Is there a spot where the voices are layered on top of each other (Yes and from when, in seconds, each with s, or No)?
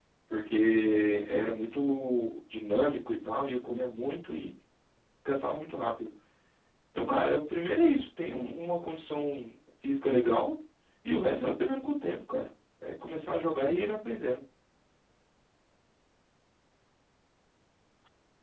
No